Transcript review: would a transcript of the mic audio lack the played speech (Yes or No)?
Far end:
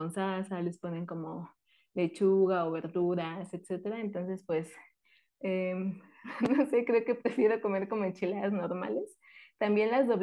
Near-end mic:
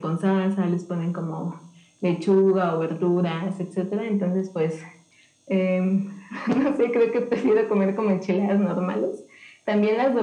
No